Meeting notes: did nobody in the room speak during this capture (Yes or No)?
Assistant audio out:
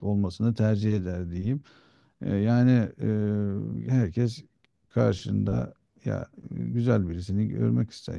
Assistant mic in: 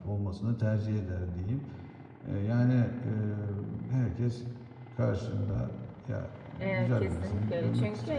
No